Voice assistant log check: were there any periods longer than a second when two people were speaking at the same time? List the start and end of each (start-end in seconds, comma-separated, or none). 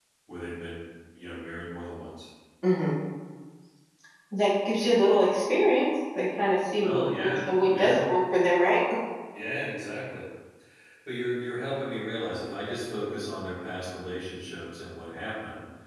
6.8-8.1